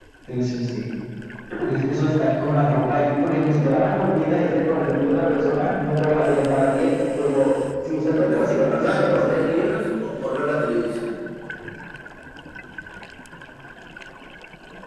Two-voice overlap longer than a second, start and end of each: 8.2-9.6

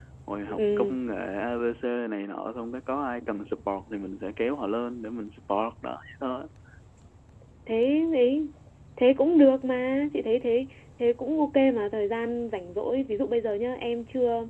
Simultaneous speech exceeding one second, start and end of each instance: none

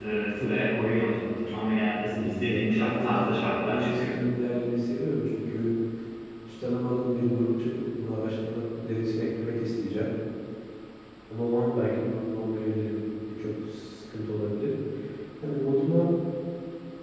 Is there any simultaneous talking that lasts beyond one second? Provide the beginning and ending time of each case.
2.0-3.2

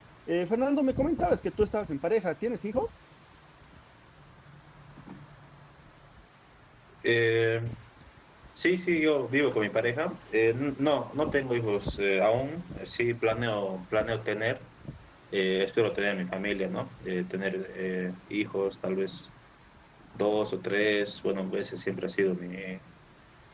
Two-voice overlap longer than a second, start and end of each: none

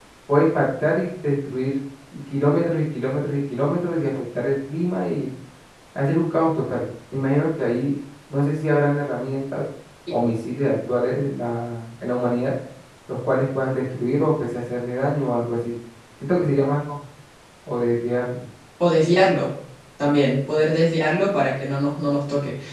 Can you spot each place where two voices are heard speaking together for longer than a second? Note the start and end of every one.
none

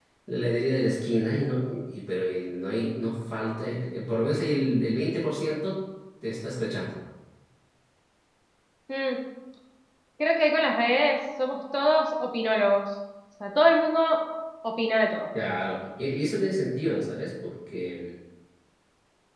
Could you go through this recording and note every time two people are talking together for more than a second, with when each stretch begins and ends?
none

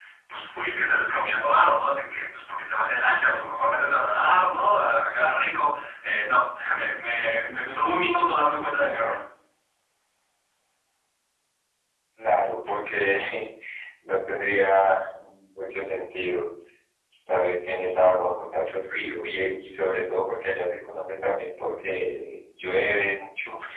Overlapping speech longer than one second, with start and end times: none

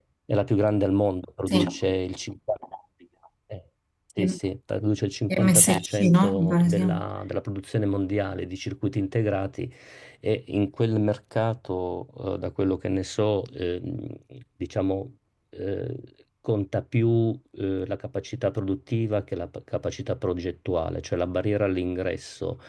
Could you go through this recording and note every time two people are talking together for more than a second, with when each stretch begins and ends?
5.3-6.8

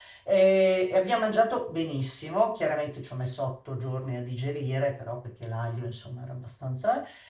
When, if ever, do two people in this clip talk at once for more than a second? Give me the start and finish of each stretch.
none

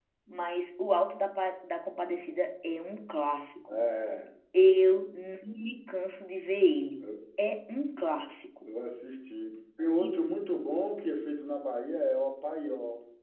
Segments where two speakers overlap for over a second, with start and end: none

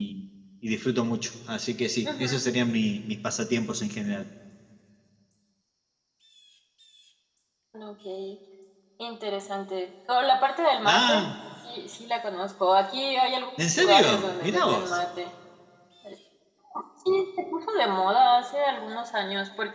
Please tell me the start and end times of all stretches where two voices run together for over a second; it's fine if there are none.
13.8-15.0

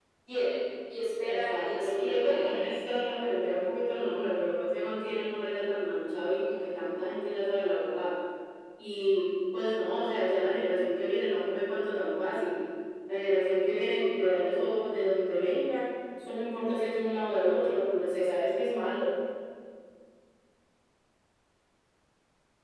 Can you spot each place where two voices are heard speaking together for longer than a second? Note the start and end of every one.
1.2-2.5

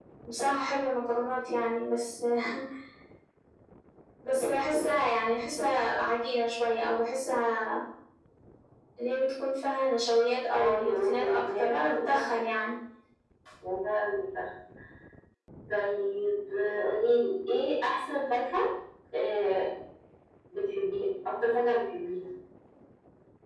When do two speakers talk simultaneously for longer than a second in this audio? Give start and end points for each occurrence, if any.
10.5-12.4

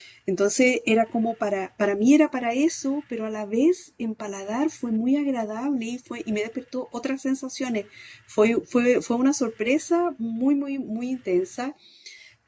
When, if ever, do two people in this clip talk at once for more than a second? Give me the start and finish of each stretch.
none

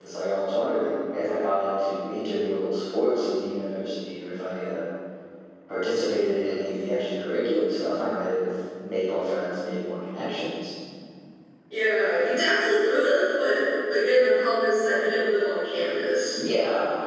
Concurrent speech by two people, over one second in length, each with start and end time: none

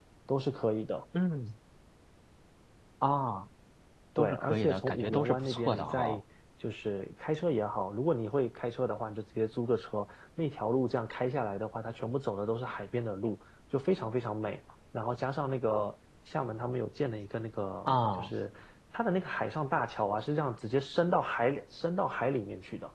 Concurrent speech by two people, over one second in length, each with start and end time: 4.2-6.2

